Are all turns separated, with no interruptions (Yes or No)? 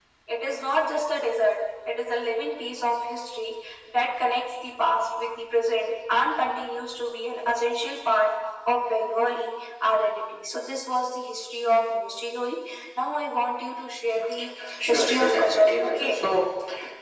No